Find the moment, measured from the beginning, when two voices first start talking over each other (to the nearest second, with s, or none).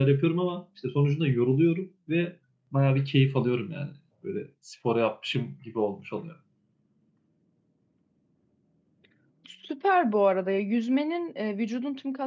none